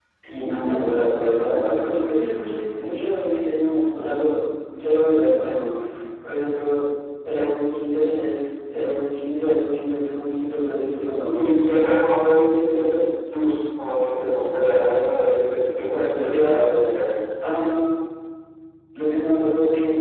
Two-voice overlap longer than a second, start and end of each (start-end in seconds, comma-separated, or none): none